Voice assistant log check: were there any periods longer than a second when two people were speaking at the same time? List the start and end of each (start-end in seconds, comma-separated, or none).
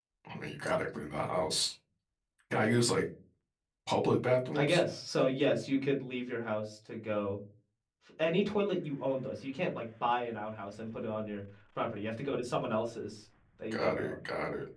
none